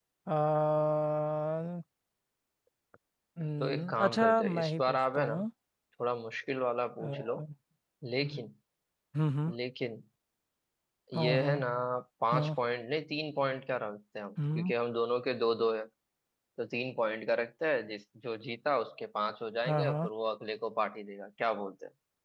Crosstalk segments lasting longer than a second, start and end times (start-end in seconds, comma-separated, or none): 3.6-5.3